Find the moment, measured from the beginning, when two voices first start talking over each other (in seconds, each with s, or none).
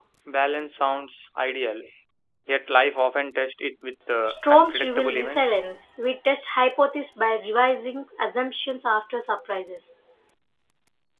4.2 s